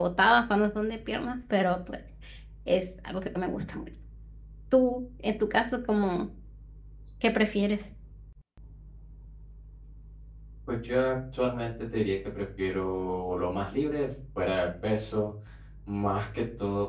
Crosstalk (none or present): none